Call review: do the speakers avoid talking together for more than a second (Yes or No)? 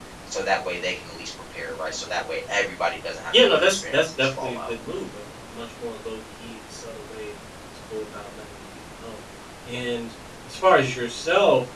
No